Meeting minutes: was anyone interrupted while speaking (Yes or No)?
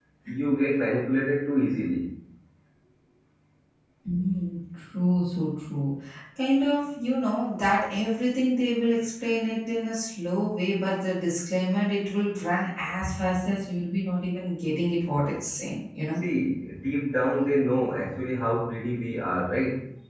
No